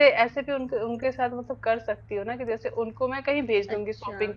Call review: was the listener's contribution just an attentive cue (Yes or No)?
Yes